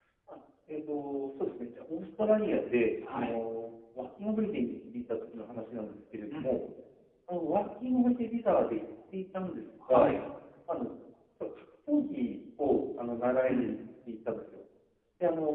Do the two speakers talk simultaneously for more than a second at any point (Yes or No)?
No